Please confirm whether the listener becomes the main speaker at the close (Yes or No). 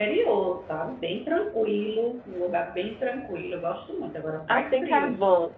Yes